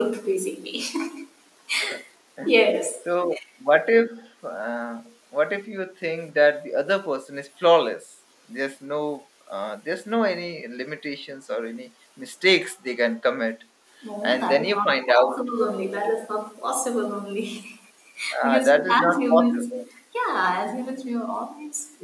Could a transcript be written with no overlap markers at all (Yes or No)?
No